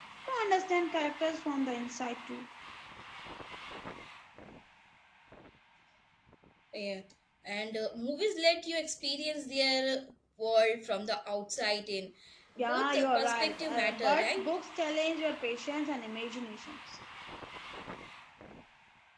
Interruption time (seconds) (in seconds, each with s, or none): 12.6 s